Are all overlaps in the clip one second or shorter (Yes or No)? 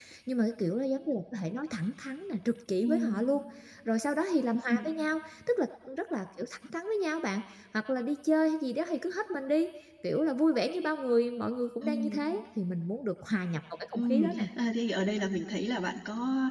Yes